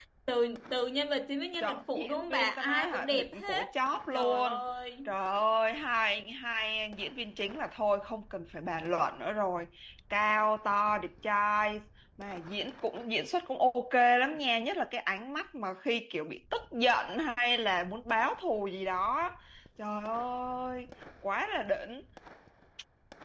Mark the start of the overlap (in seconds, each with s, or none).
1.6 s